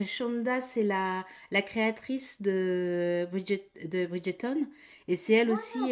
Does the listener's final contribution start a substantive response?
No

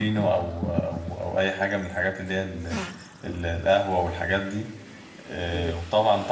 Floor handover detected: No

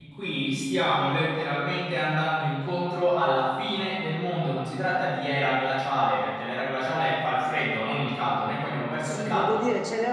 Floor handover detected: Yes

